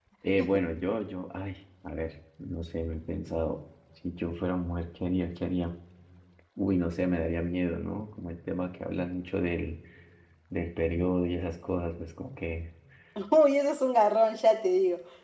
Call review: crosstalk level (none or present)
none